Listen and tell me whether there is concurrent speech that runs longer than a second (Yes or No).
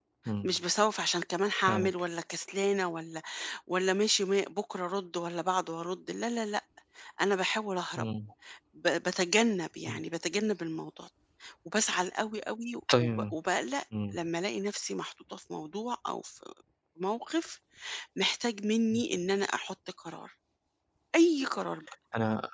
No